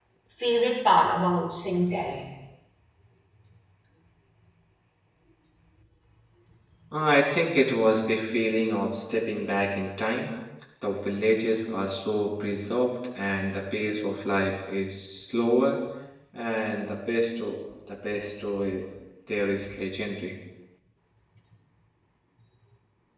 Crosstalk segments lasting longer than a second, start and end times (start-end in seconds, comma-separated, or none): none